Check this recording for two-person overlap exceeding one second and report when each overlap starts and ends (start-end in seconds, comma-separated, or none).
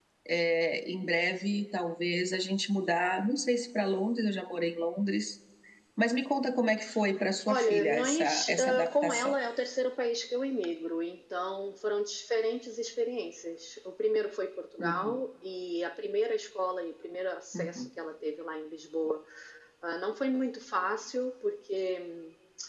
7.5-9.3